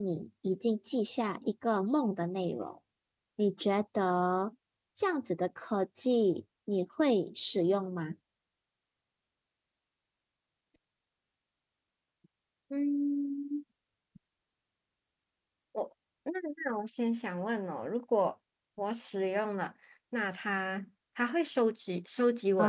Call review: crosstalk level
none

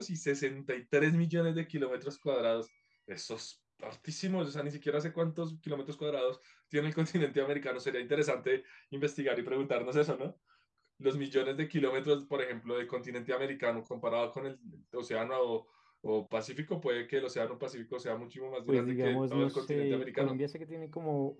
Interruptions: present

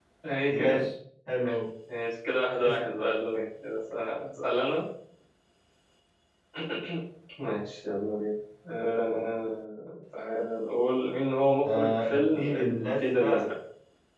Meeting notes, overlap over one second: present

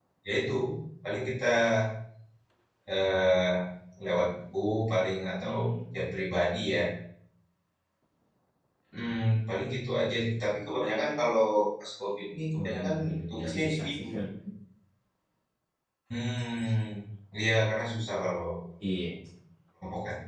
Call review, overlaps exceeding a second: present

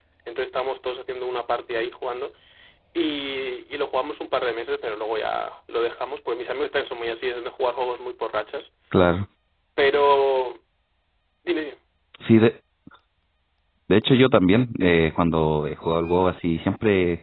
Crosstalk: none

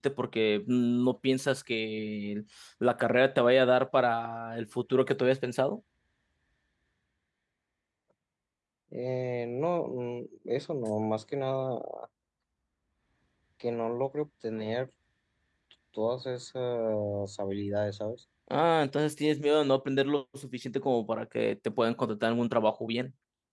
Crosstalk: none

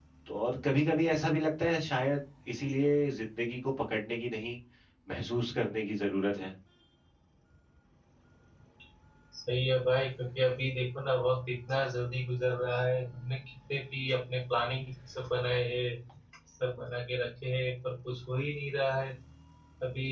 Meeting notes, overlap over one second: none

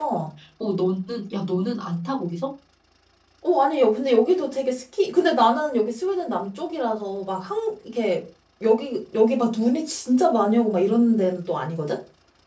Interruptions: none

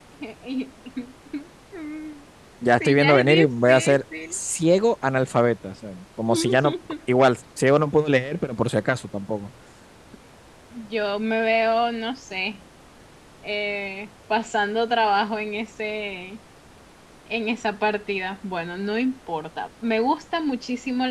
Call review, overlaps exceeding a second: present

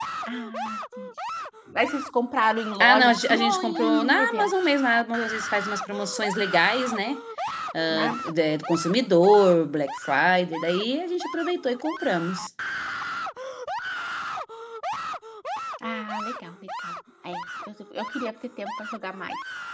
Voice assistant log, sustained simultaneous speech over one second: present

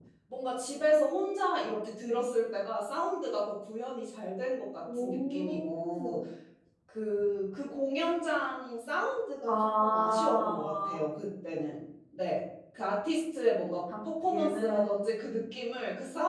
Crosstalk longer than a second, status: present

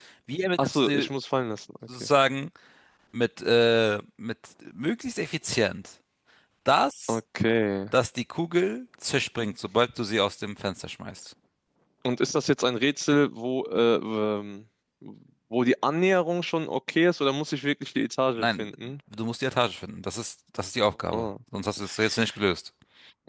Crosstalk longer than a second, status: none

